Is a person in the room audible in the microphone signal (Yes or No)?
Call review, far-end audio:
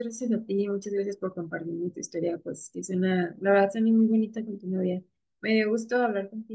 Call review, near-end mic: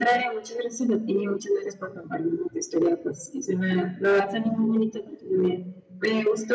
No